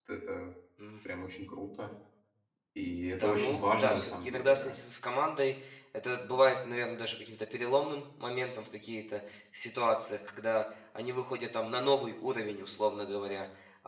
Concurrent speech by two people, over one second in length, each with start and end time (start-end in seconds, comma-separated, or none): 3.1-4.7